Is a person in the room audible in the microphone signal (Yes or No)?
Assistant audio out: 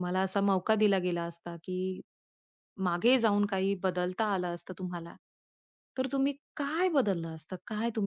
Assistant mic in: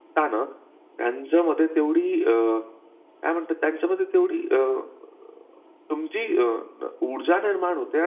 Yes